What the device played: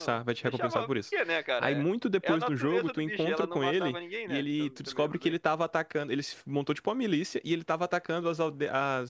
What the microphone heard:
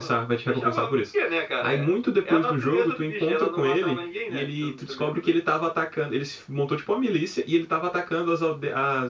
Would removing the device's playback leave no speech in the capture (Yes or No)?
Yes